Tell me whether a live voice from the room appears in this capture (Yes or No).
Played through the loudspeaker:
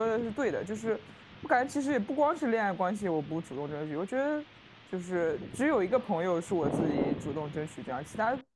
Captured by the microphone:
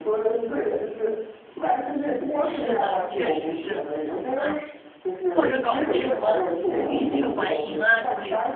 Yes